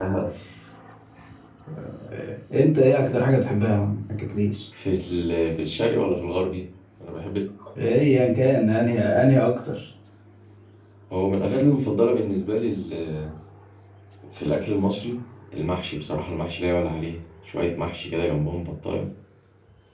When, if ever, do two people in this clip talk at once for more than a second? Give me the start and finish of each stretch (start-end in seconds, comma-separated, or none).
none